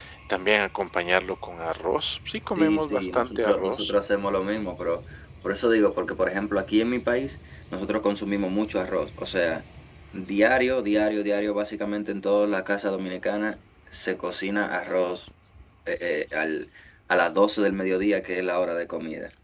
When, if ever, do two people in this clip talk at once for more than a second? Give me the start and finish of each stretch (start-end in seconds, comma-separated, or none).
2.6-3.9